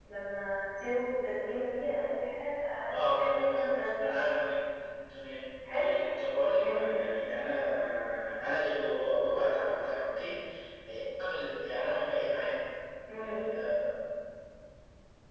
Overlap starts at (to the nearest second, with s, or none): 3 s